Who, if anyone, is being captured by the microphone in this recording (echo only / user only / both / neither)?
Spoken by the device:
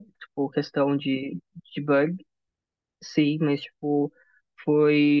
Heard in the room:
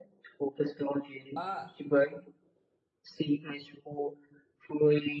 both